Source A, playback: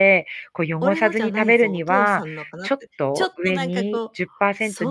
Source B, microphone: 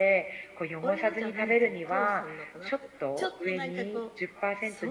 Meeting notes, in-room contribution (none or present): none